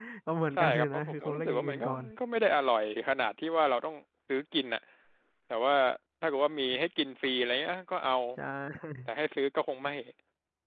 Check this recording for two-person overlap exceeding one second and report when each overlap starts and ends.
0.6-2.0

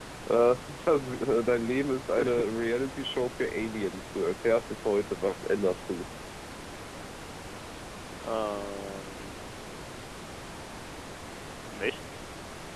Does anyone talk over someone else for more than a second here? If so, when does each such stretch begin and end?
none

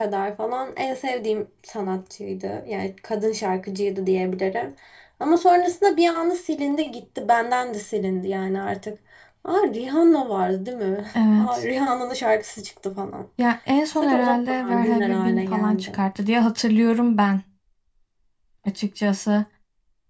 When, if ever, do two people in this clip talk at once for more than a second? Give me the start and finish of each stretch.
14.0-16.0

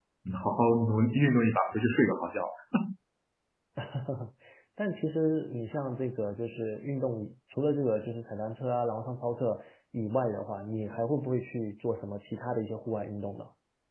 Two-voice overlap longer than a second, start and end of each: none

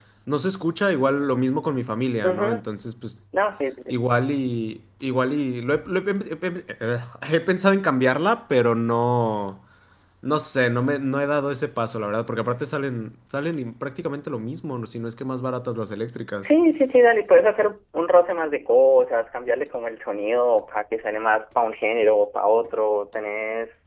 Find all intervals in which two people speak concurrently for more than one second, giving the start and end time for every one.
none

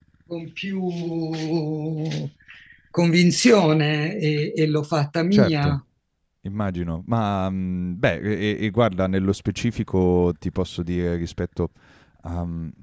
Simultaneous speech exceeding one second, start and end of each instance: none

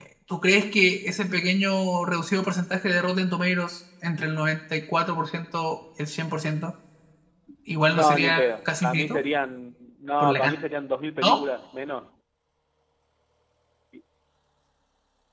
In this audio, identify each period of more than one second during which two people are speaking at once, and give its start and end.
7.9-9.2

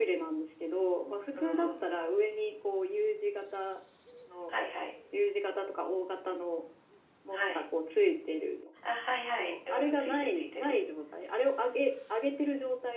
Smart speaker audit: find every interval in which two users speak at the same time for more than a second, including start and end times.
9.4-10.8

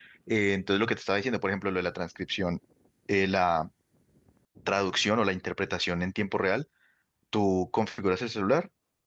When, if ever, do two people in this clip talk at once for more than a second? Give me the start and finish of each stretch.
none

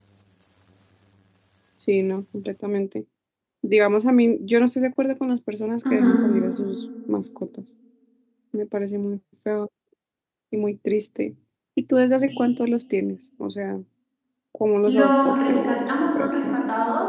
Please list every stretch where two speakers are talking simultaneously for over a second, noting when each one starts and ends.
14.9-16.6

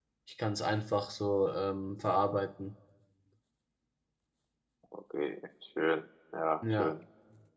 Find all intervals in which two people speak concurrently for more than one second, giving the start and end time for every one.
none

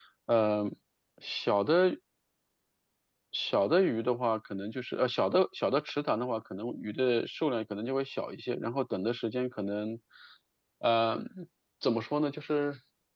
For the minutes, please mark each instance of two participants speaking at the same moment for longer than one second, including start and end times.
none

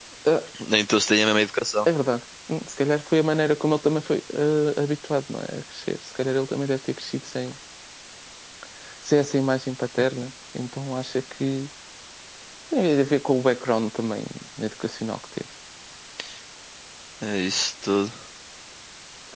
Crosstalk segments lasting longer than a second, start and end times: none

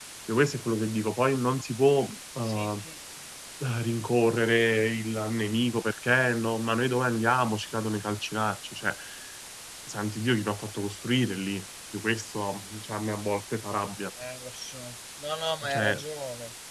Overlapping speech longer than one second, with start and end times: none

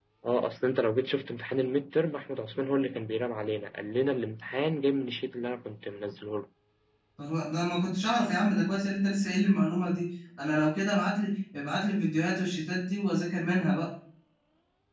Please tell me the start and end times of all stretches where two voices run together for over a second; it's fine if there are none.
none

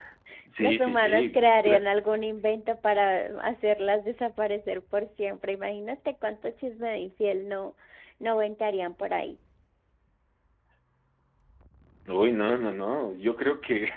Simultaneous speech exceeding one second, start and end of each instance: 0.6-1.9

